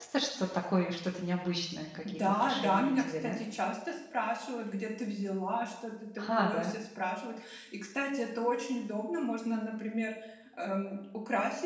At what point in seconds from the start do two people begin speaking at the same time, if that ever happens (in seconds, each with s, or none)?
2.0 s